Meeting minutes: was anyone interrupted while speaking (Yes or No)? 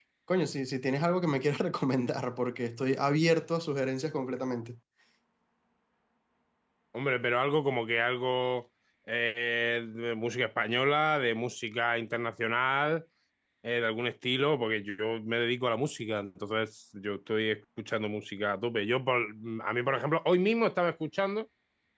No